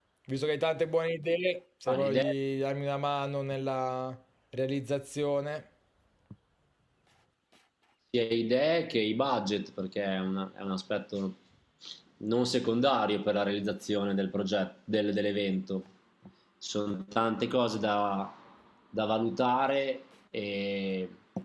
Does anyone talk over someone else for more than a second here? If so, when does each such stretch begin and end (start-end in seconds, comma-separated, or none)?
none